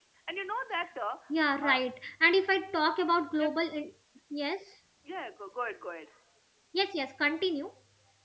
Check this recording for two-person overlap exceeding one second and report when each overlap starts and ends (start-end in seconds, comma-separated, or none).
none